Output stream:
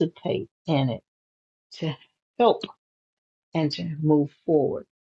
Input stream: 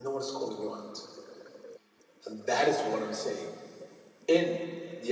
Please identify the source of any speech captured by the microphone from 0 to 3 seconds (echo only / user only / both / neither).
user only